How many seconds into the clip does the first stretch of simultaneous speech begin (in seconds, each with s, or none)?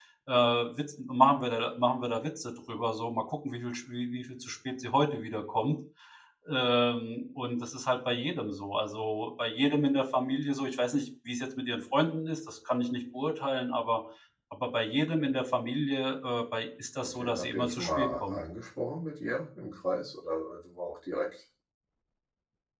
17.0 s